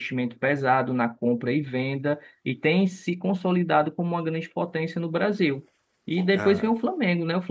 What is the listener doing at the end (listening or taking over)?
listening